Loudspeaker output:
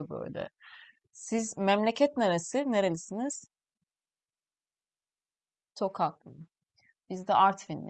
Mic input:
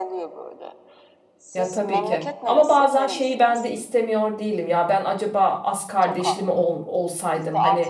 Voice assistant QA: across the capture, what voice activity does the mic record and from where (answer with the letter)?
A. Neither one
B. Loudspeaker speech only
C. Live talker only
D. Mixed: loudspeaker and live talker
D